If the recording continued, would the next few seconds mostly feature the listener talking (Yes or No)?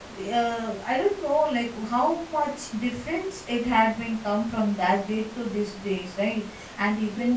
No